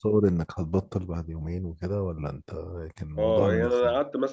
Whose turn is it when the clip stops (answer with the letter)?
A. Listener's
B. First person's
A